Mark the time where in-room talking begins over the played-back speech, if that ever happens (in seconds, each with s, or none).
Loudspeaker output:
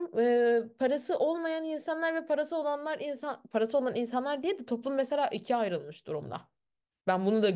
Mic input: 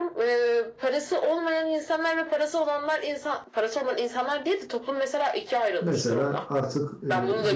5.8 s